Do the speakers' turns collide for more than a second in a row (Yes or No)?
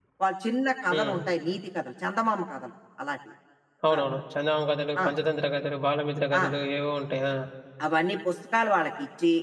No